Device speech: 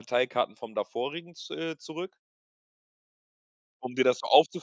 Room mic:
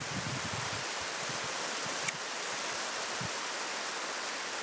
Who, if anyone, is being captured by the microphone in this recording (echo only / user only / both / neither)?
neither